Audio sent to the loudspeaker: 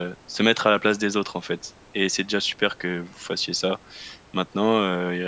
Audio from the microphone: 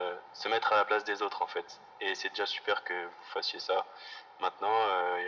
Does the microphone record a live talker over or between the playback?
No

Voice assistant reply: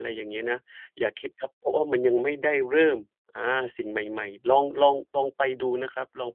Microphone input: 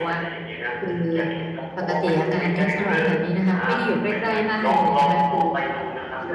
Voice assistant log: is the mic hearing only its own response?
No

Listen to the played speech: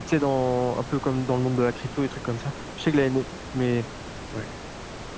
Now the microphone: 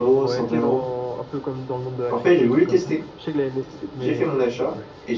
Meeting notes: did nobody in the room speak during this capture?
No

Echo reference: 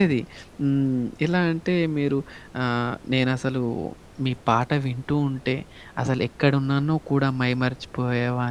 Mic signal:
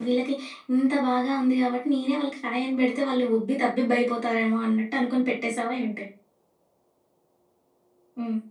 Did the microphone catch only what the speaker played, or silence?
No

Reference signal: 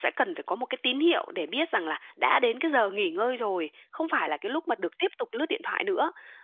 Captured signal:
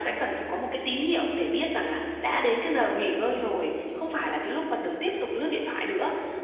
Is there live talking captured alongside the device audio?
No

